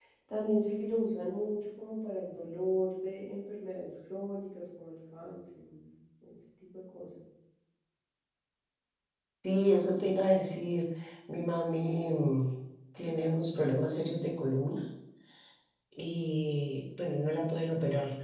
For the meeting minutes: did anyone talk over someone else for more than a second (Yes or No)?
No